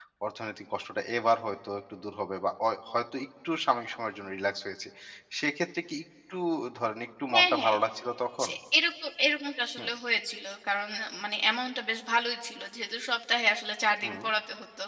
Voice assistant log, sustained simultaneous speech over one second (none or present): none